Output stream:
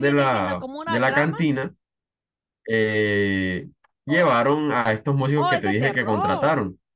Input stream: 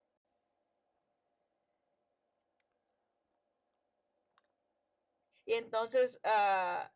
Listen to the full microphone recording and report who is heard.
user only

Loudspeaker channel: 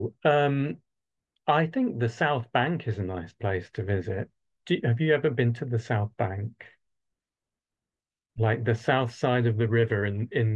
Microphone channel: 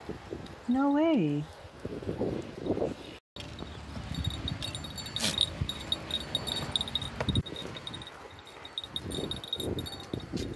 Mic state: user only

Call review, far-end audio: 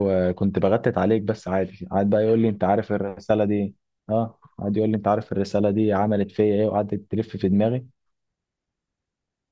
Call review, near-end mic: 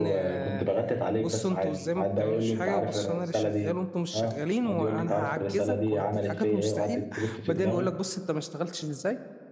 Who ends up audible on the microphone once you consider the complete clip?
both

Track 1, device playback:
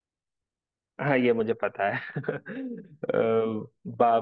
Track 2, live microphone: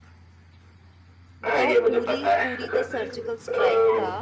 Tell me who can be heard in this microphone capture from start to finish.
both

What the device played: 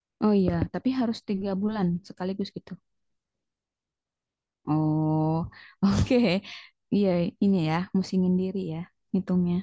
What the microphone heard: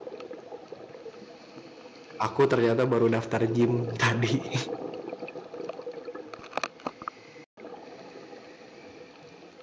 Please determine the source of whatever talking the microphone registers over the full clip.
user only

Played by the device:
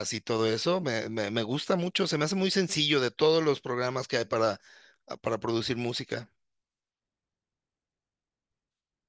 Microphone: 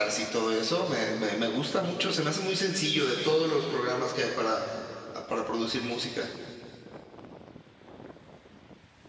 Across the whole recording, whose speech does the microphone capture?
echo only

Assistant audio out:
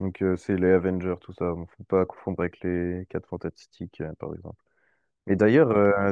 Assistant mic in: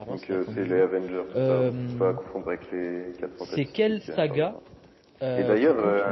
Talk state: both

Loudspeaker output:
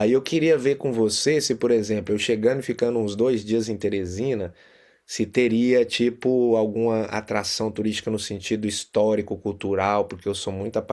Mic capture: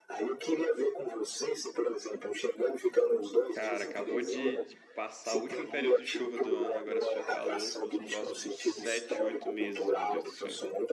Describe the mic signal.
both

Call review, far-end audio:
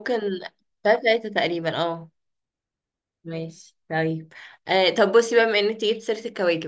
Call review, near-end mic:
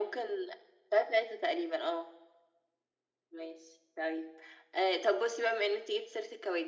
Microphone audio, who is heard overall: echo only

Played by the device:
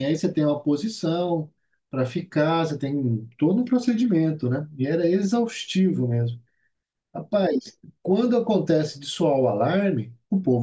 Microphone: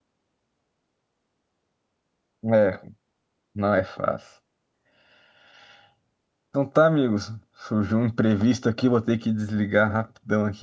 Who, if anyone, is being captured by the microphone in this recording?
user only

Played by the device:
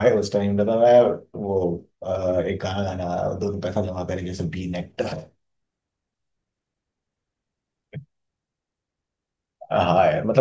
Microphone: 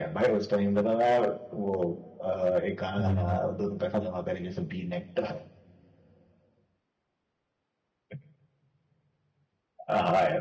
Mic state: both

